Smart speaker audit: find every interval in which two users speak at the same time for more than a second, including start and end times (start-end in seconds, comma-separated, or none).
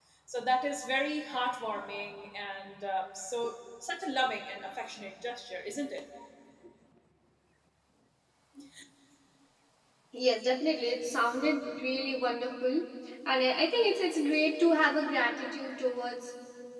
none